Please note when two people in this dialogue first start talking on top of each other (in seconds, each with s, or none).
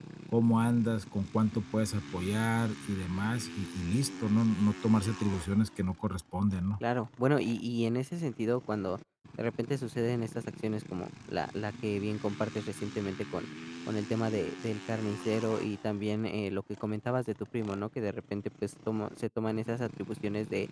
none